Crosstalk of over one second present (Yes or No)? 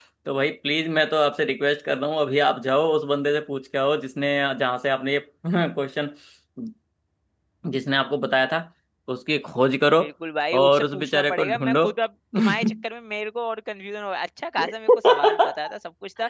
Yes